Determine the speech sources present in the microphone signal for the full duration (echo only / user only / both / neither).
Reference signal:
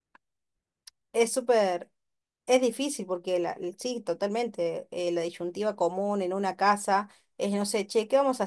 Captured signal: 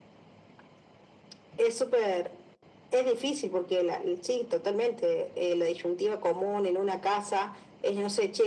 echo only